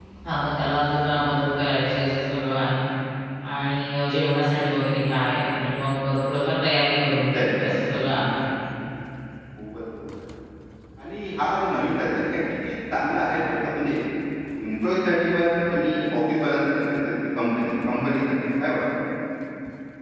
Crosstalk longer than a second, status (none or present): none